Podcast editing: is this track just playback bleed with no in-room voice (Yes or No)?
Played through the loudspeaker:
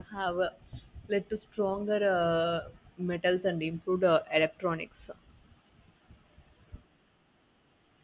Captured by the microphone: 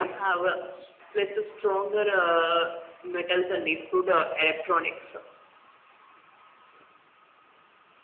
Yes